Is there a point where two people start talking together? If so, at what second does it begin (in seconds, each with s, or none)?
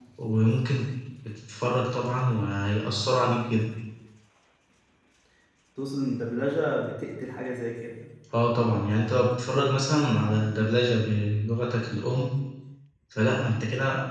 none